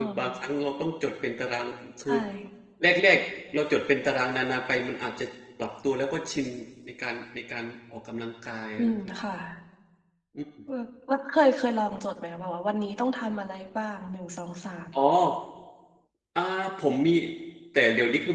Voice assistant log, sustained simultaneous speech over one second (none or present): none